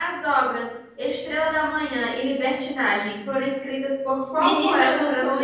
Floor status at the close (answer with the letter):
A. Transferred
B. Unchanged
A